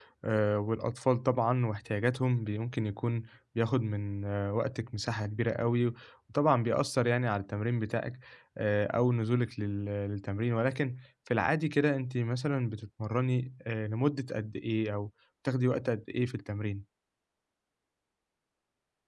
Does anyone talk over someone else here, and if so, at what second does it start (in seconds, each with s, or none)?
none